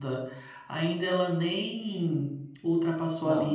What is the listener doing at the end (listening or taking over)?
listening